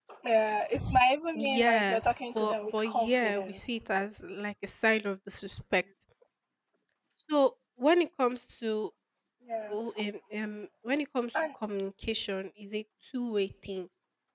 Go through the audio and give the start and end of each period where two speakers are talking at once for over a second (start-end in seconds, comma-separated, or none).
1.6-3.6